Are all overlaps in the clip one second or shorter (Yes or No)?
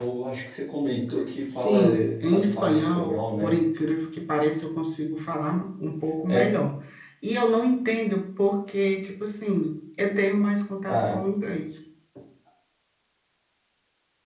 No